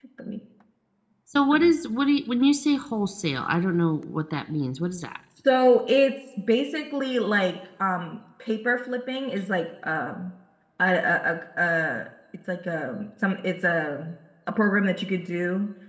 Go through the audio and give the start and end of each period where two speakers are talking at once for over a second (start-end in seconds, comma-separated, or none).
none